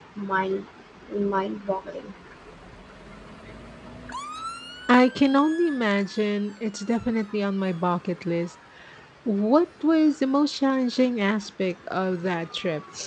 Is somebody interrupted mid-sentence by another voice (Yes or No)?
No